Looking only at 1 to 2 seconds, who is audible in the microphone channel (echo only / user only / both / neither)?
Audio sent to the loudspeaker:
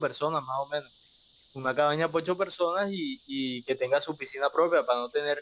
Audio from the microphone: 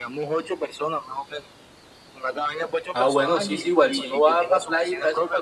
echo only